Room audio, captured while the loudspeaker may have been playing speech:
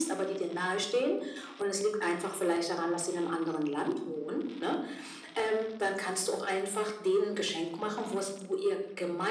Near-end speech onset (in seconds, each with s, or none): none